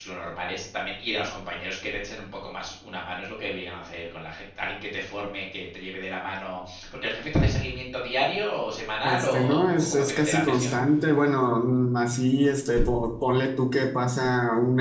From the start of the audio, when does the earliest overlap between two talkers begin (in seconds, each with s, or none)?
9.0 s